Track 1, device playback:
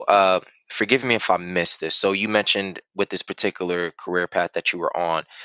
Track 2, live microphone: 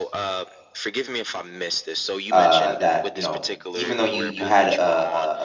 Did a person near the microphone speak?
Yes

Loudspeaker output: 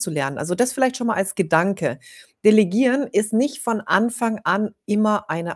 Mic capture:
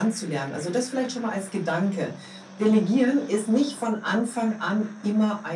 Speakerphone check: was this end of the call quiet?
Yes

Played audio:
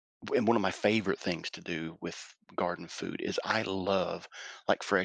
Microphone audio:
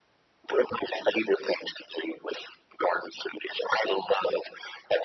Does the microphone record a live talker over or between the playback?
No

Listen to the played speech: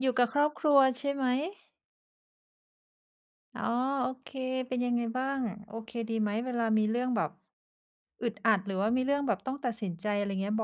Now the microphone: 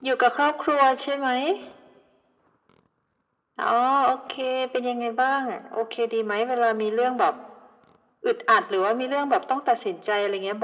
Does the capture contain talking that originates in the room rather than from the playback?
No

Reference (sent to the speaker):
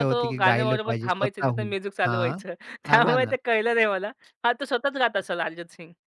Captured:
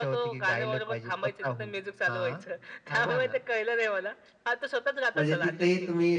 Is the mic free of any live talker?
No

